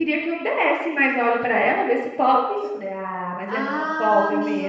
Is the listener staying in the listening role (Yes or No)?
No